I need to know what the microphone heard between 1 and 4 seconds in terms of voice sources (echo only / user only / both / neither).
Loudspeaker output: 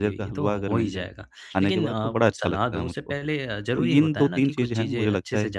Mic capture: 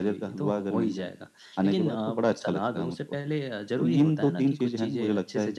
echo only